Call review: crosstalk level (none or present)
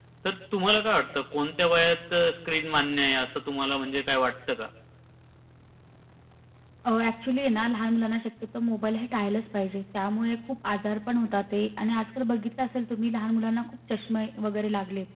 none